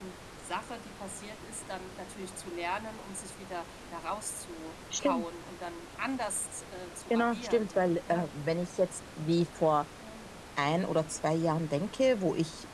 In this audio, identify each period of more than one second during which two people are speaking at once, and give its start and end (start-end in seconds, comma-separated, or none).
7.1-8.3